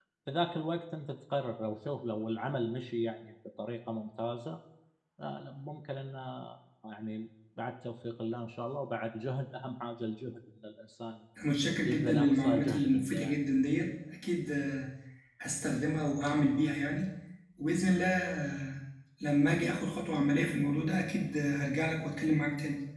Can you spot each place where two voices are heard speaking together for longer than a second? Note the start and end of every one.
11.8-13.3

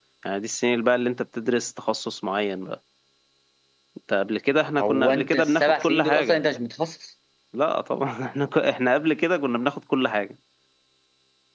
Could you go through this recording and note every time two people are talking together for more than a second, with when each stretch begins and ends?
4.8-6.4

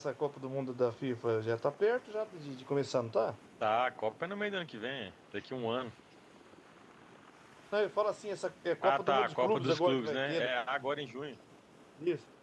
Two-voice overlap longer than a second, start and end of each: 8.8-10.5

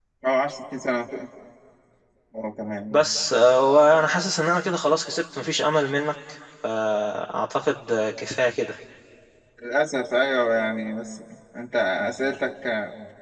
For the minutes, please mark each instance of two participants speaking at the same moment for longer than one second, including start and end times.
none

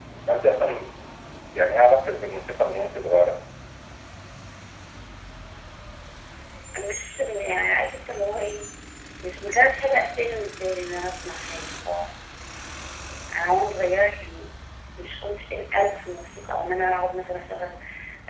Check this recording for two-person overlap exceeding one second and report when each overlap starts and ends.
none

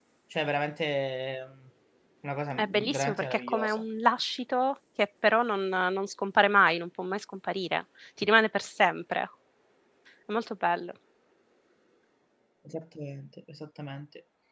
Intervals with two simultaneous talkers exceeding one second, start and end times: 2.6-3.8

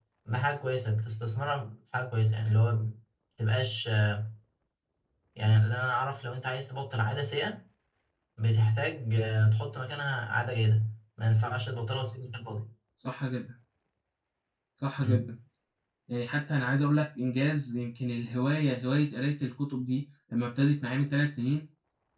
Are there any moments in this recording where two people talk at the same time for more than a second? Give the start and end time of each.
none

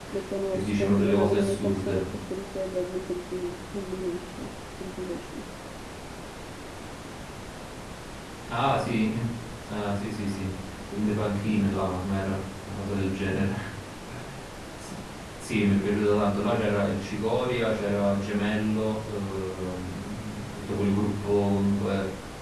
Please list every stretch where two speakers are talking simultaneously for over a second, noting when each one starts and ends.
0.5-2.0

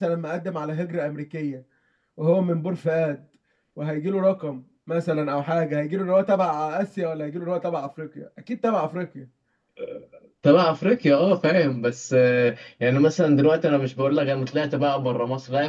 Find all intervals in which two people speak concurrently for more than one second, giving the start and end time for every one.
none

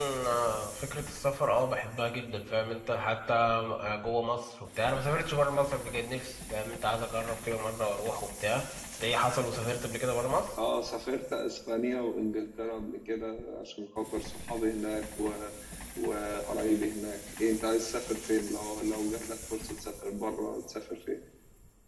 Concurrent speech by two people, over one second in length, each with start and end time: none

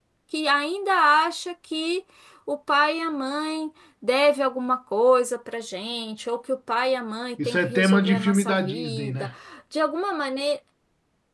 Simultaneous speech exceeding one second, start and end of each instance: 7.5-9.3

